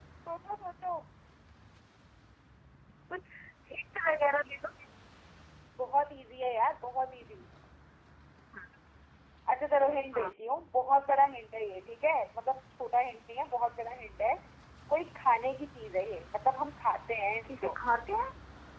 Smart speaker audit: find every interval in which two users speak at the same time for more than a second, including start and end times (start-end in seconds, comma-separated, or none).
none